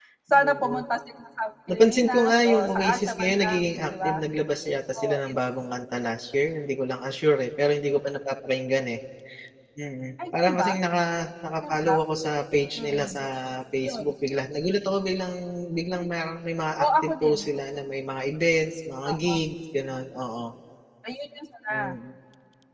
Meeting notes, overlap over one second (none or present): present